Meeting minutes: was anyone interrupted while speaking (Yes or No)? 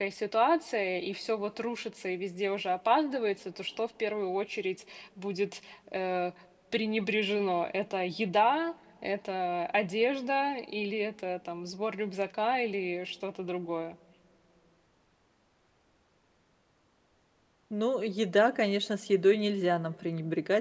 No